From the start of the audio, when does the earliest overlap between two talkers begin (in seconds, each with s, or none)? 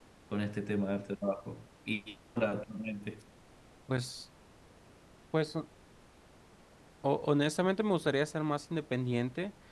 none